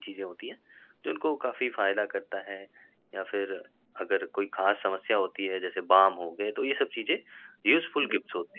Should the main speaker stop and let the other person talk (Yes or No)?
No